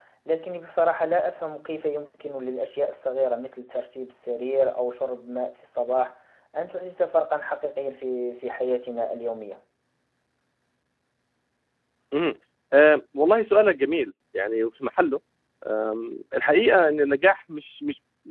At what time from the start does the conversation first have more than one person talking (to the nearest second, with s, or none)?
none